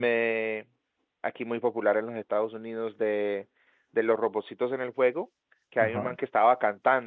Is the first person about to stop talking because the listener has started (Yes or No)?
No